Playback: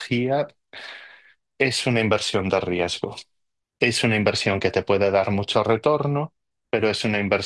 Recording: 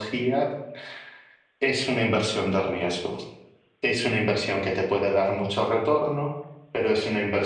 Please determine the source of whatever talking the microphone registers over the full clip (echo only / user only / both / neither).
echo only